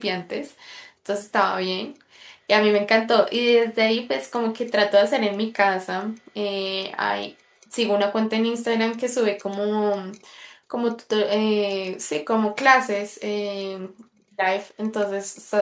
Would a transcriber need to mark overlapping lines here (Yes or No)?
No